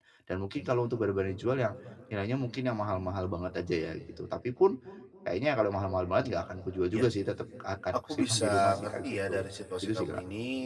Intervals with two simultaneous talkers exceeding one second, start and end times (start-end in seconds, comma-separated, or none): 8.1-9.4